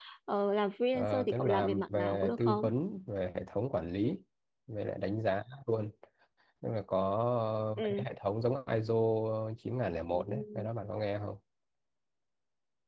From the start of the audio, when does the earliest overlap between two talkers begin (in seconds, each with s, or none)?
0.9 s